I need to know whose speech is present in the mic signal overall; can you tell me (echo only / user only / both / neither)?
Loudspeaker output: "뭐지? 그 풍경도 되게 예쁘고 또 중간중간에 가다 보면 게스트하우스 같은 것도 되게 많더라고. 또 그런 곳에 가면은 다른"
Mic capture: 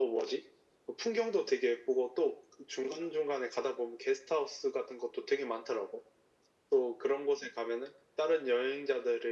echo only